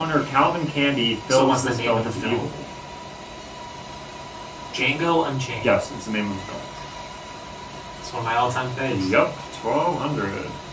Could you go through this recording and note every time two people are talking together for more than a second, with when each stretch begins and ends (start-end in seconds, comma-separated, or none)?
1.3-2.5